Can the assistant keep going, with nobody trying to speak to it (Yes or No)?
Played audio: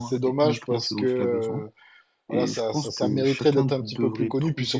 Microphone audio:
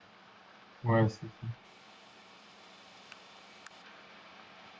No